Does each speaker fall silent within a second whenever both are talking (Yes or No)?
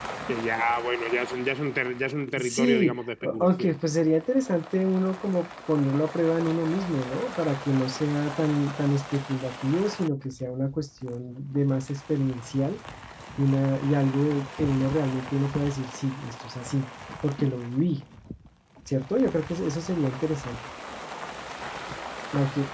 No